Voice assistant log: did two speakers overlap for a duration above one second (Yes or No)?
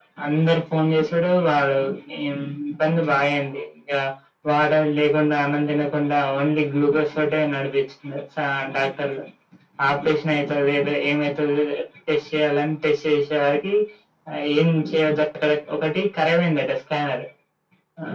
No